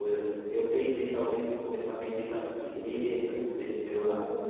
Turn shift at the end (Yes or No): No